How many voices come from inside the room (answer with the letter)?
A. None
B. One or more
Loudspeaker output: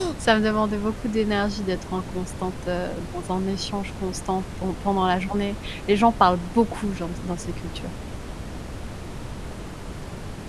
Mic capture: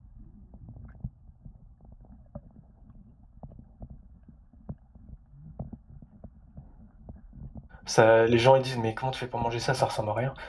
B